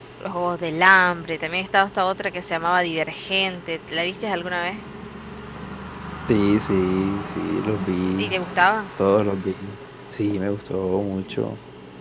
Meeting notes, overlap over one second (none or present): none